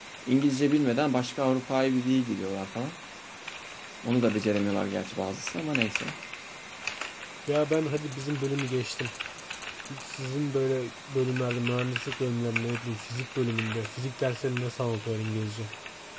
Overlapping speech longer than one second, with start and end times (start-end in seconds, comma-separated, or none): none